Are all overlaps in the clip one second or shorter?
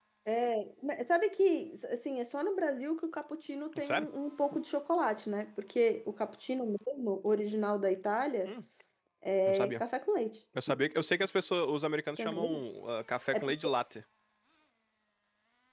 Yes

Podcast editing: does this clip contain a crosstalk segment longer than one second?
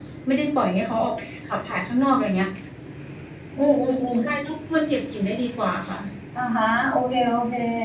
No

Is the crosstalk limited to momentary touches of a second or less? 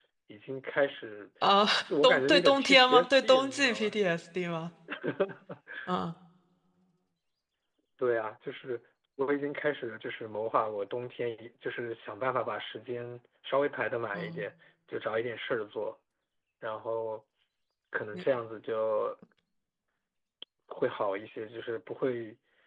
No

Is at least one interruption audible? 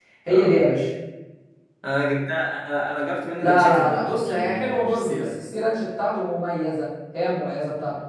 Yes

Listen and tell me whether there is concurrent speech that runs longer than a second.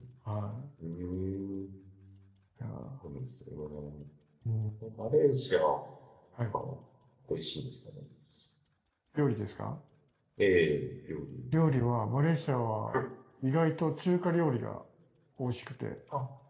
No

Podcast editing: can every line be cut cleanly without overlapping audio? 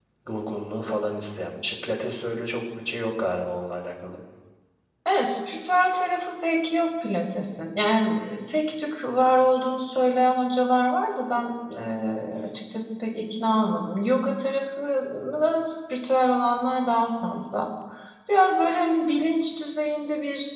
Yes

